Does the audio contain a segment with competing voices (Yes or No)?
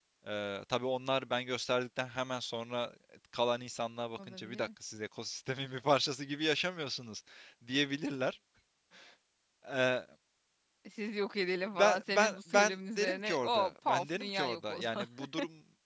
Yes